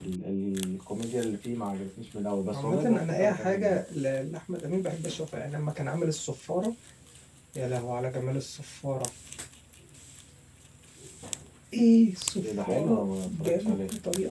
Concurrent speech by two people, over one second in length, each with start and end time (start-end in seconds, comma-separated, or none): 2.5-3.8, 12.4-13.8